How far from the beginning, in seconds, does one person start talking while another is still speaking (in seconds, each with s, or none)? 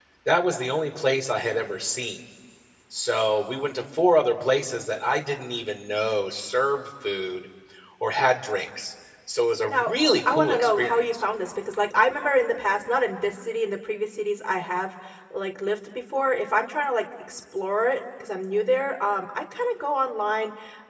9.7 s